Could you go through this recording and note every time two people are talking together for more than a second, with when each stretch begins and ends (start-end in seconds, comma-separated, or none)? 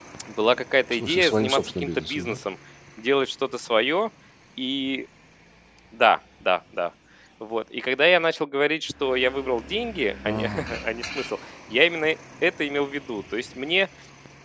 0.9-2.4